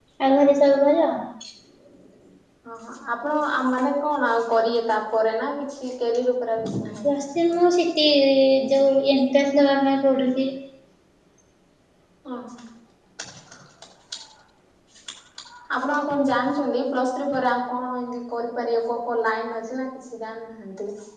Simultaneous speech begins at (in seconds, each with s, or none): none